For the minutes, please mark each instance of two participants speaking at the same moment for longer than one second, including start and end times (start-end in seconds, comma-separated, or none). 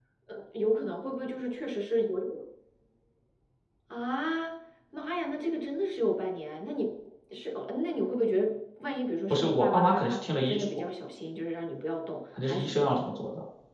9.3-10.7